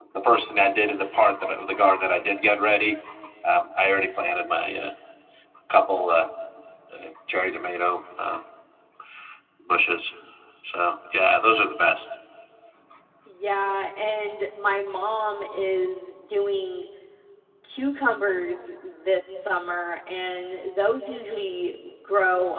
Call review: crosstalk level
none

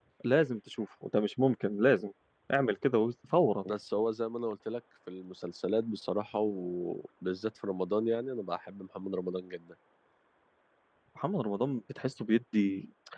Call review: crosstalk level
none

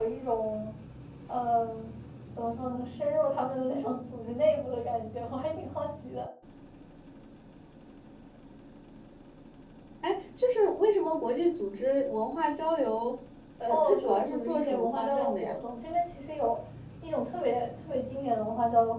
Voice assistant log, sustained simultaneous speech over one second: present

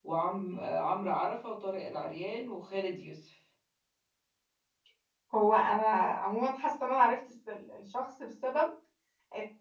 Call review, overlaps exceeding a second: none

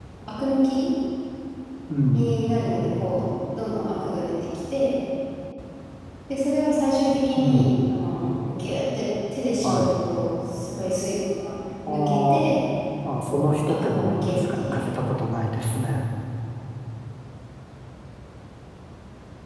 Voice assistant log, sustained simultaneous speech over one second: present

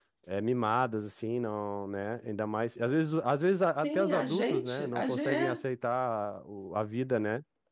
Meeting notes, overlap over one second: present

